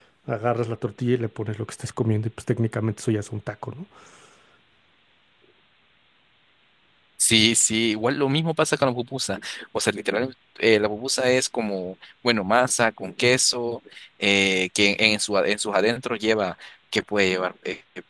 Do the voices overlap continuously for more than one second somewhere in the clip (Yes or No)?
No